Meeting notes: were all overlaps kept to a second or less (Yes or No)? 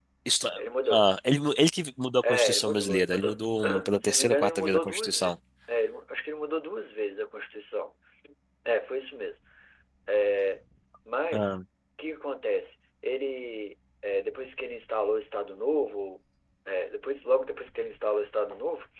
No